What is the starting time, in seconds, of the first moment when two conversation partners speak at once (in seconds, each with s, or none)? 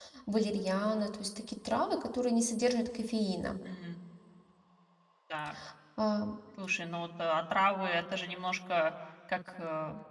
none